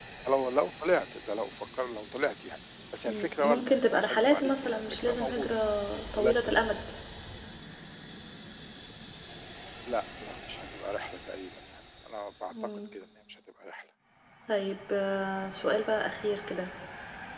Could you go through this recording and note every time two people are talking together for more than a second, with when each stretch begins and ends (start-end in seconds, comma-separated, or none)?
3.1-5.5